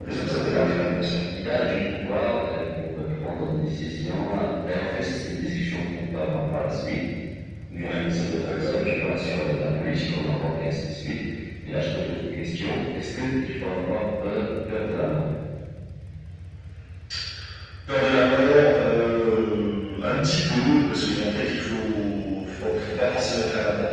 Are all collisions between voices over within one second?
No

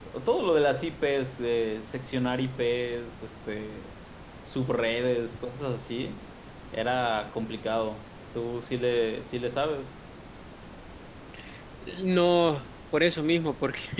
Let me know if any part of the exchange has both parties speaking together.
No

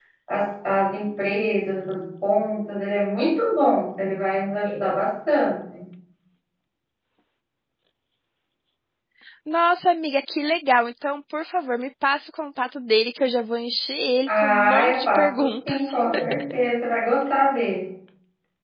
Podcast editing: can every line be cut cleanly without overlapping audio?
No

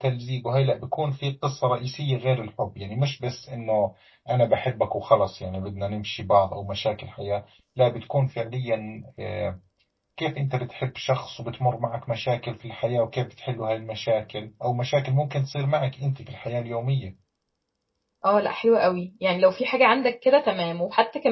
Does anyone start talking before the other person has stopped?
No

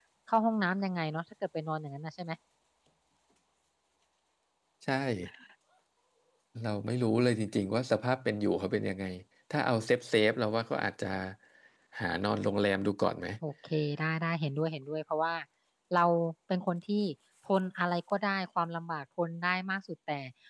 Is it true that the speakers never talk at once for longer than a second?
Yes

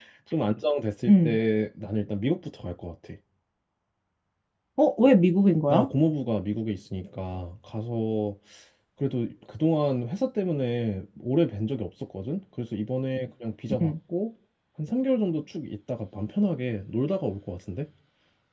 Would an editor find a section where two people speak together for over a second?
No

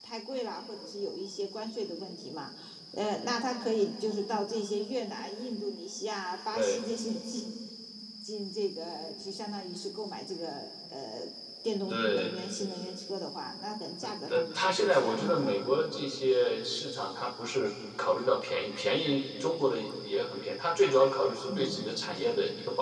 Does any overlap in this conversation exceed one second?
Yes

